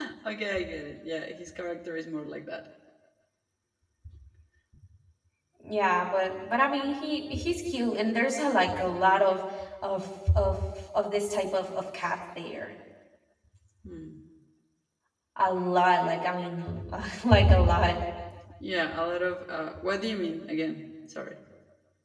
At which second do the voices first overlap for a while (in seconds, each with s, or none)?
none